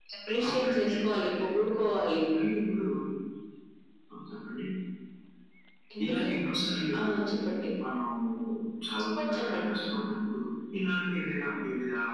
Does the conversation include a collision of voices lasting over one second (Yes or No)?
Yes